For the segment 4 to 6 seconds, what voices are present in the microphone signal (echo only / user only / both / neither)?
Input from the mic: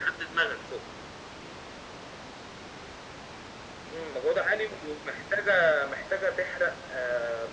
echo only